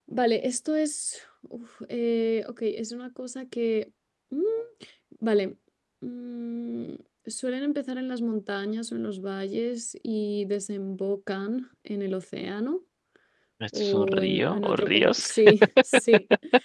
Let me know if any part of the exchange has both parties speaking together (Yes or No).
Yes